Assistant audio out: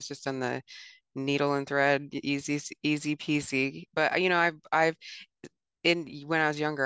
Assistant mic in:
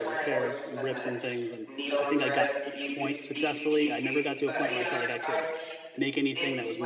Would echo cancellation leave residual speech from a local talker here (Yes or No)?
Yes